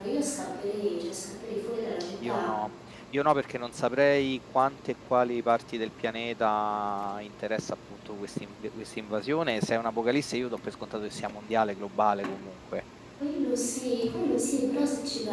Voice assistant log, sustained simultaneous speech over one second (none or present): none